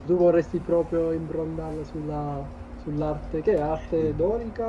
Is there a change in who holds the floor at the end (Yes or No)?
No